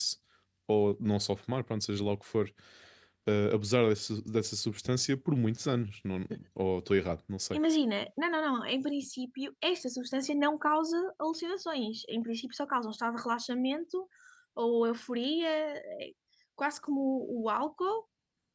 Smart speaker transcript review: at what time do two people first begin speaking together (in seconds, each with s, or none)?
none